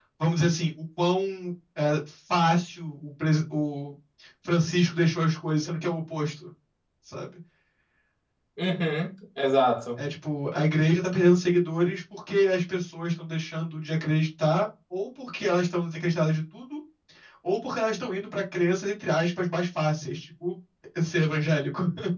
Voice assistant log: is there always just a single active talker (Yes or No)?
Yes